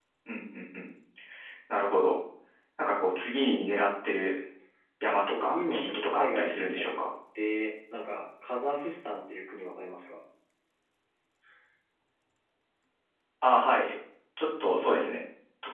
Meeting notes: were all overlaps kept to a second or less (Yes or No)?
No